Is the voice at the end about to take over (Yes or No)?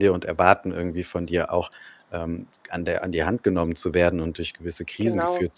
No